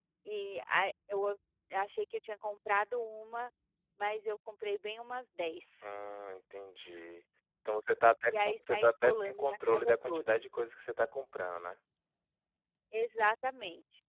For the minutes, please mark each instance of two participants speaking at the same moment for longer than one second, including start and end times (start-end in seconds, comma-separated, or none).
8.3-10.4